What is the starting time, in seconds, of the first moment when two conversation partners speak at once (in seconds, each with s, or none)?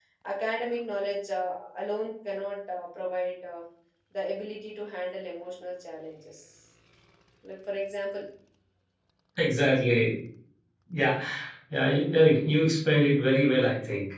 none